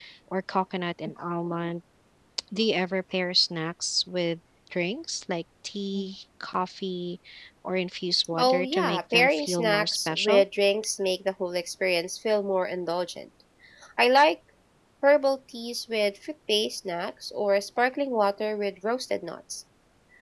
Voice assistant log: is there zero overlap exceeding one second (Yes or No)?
No